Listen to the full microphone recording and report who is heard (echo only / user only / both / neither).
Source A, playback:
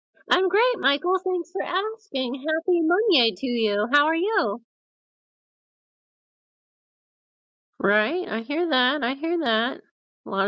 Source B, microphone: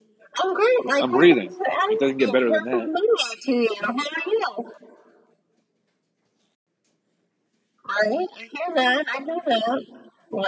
both